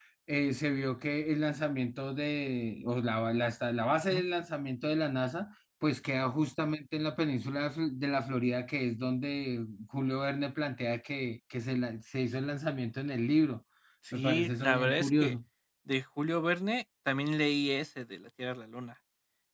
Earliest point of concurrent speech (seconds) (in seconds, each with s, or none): 14.1 s